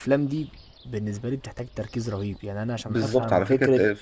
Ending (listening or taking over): taking over